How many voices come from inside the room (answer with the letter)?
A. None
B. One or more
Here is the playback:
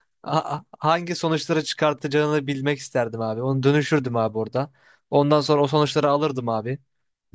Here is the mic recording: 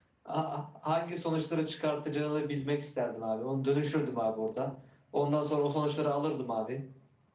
A